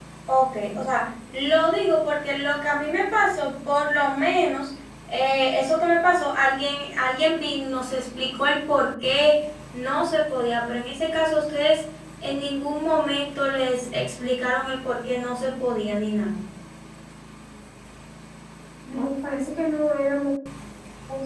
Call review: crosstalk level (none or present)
none